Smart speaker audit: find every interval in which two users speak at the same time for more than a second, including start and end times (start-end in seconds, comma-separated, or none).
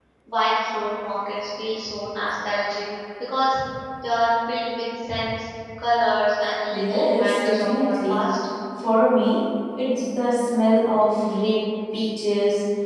6.7-8.3